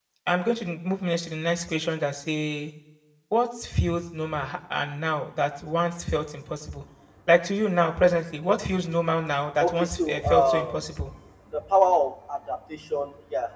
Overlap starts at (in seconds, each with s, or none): 9.6 s